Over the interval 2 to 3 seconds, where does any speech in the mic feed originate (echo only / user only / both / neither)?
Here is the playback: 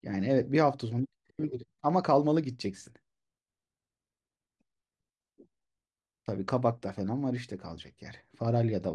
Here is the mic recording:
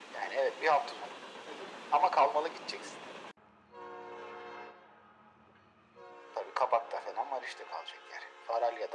echo only